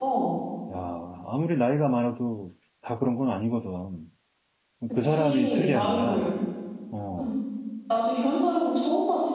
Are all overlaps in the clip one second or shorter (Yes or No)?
No